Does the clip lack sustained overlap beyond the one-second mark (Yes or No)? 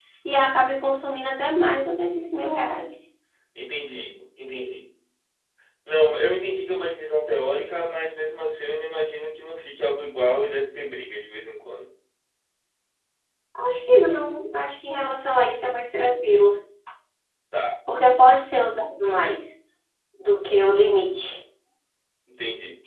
Yes